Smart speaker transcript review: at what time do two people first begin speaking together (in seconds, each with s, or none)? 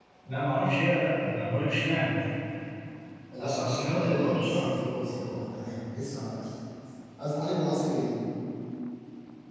3.4 s